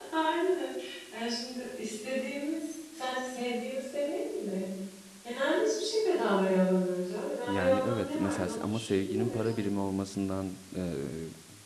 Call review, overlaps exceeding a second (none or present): present